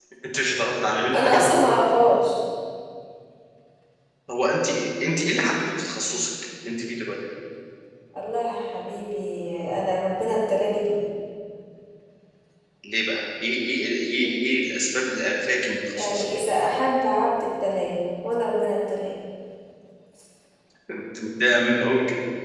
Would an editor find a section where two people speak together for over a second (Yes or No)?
No